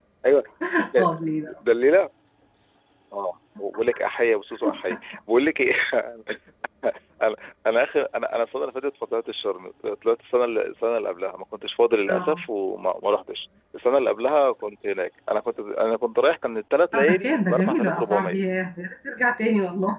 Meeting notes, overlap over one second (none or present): present